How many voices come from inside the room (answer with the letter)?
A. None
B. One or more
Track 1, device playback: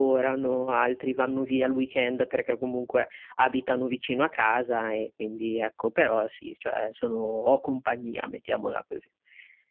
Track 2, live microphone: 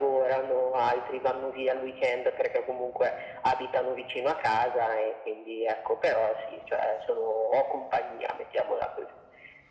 A